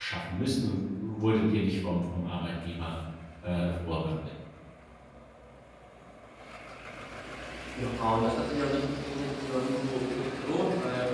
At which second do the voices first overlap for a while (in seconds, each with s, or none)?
none